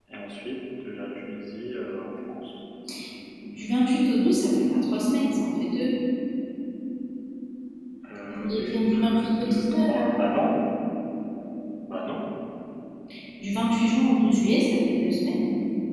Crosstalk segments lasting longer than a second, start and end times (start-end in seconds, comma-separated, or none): 8.3-10.2